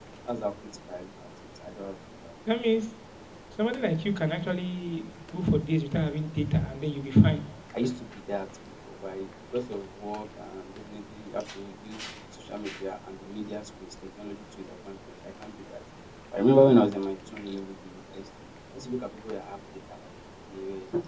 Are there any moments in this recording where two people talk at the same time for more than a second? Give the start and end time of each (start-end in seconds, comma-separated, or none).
none